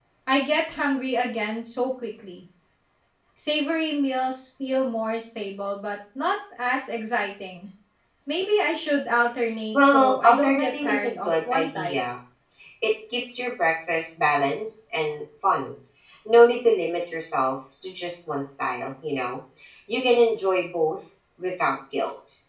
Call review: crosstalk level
present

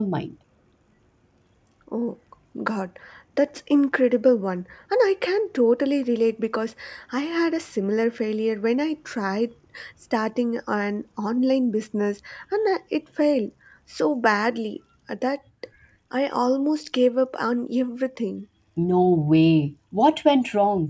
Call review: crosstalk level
none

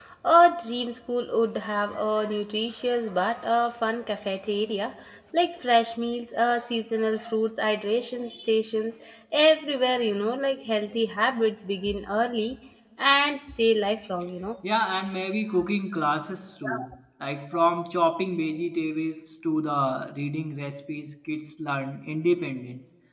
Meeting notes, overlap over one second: none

